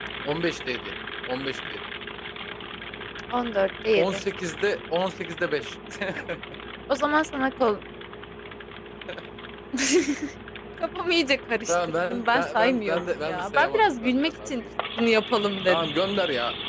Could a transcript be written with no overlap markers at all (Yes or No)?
No